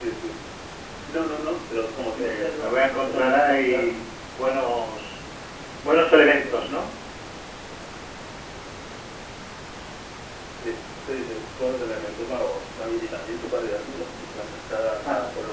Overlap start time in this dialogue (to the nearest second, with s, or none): 2 s